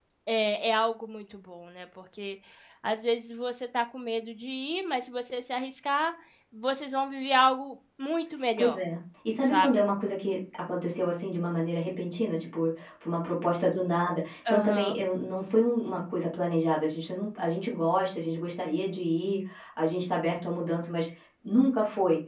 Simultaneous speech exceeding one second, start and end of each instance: none

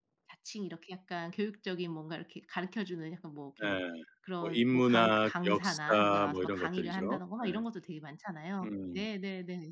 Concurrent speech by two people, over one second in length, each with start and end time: 4.4-7.0

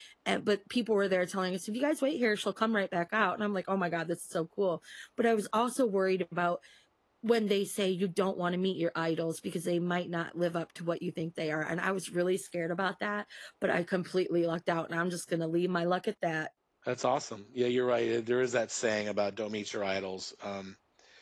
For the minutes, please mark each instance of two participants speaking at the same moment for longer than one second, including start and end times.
none

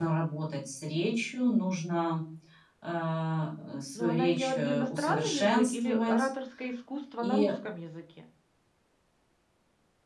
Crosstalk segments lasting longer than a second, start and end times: 4.0-6.3

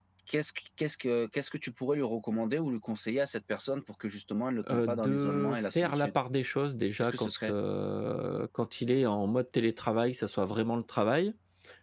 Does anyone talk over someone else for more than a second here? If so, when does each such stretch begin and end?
4.7-6.1

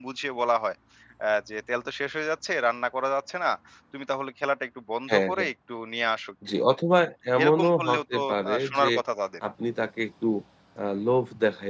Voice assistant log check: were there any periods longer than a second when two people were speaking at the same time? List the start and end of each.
7.4-8.9

